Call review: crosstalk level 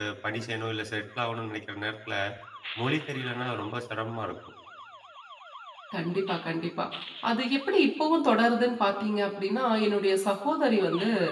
none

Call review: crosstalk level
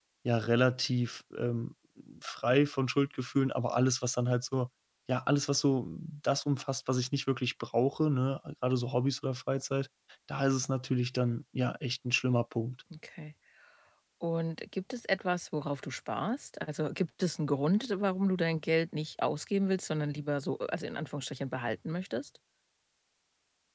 none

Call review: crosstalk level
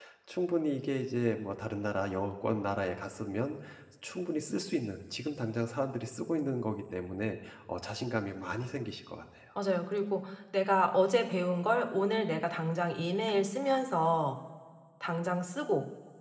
none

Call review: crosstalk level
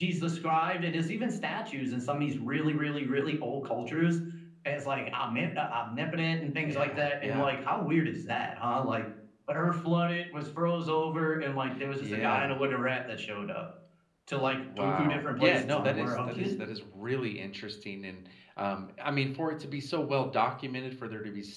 present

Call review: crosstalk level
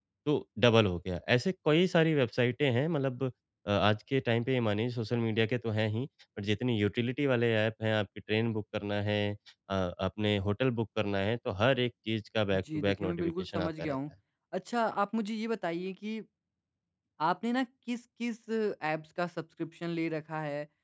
present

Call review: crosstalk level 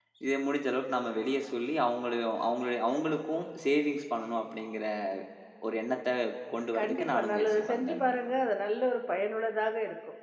present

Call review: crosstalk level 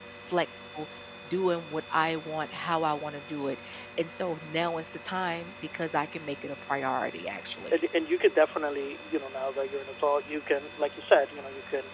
none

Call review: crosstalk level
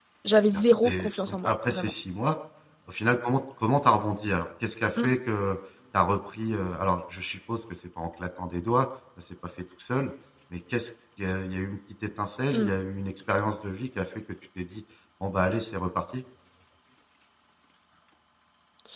present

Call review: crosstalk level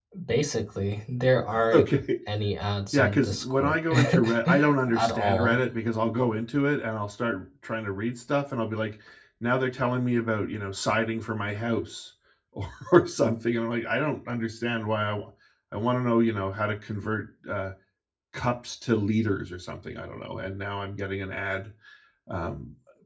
present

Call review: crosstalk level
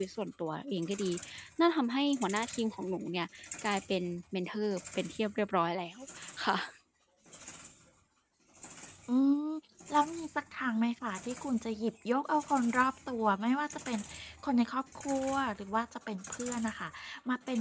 none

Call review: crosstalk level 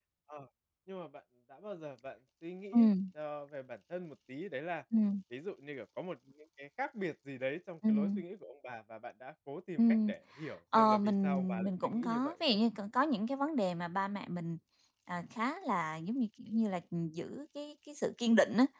present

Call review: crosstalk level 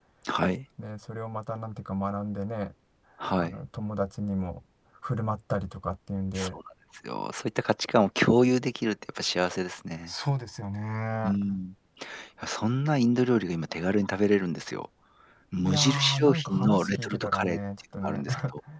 present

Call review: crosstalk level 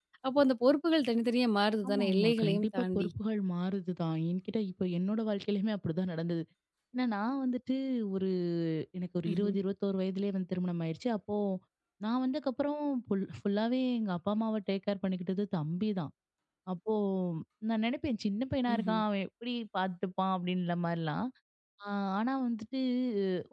present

